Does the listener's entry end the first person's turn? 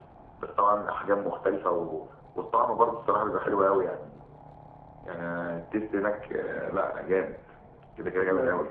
Yes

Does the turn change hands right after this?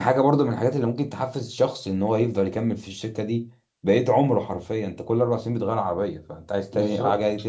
No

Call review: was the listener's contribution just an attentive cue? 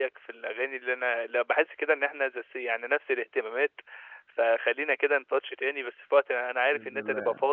Yes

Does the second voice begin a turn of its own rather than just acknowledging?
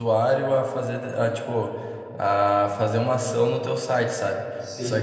No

